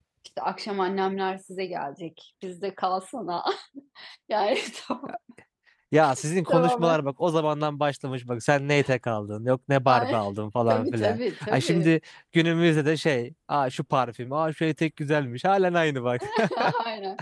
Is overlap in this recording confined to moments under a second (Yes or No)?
No